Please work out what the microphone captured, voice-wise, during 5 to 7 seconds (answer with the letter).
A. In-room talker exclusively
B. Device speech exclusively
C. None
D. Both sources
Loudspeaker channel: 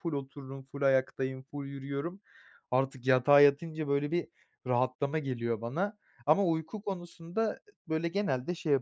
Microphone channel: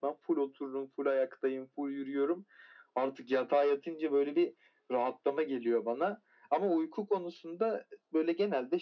B